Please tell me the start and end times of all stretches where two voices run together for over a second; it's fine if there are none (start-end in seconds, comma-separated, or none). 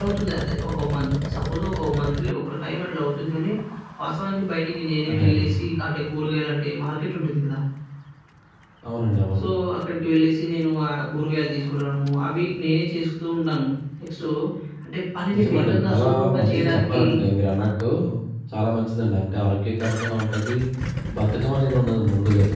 15.3-17.0